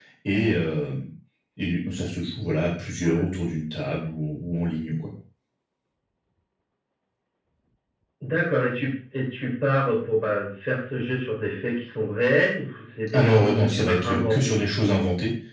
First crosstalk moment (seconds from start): 13.1 s

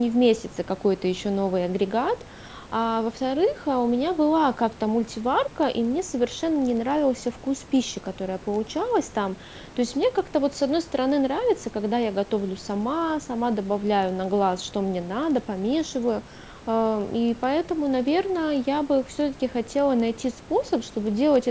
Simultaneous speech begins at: none

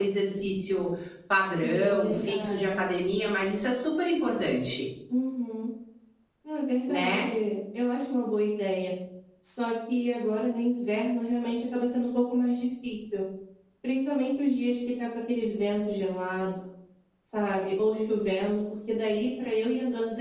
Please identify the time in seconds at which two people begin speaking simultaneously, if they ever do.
1.6 s

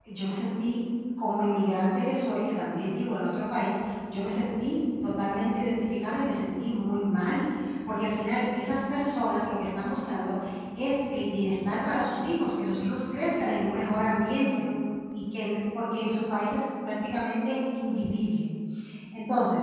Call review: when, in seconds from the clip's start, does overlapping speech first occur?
13.3 s

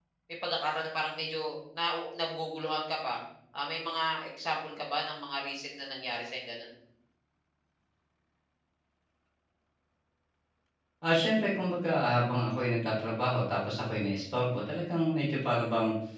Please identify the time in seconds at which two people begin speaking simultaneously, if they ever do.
none

